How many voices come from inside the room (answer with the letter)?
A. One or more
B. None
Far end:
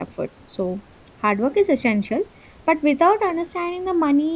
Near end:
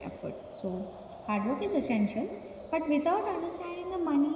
B